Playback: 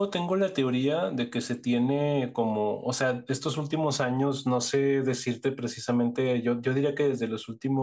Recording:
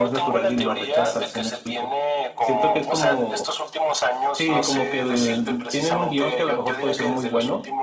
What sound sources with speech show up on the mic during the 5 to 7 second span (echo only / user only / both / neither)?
both